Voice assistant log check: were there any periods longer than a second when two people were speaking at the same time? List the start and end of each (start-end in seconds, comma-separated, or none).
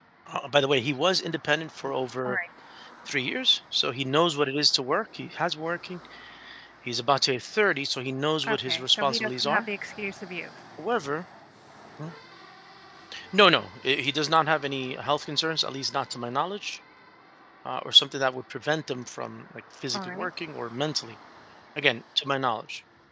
8.5-9.7